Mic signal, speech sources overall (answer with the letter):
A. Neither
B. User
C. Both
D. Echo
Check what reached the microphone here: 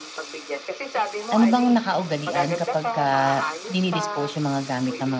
C